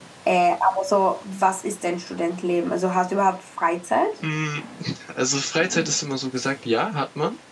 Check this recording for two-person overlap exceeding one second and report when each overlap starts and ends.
none

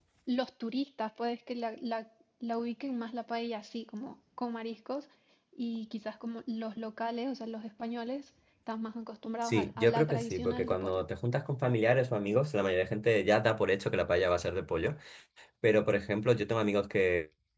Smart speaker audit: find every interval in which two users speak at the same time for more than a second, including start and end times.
9.4-11.0

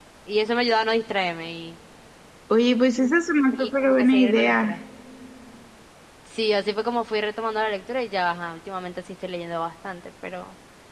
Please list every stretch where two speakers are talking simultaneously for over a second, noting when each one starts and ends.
3.6-4.8

